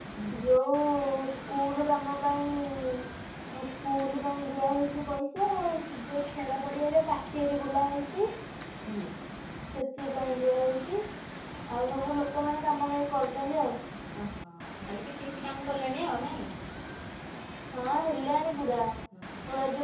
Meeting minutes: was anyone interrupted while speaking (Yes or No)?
No